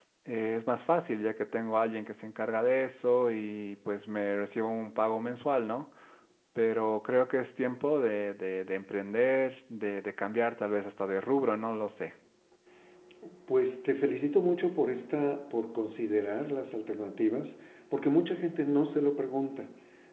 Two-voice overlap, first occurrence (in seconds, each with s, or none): none